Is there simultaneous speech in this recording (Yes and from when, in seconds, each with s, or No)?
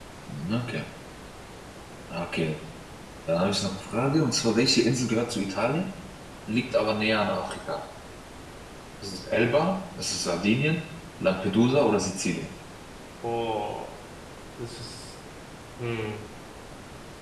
No